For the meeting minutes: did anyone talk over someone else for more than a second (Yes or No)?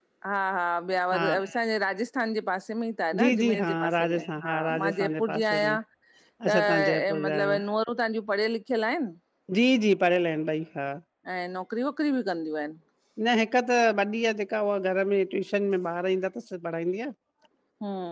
Yes